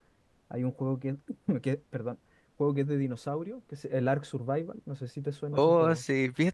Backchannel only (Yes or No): No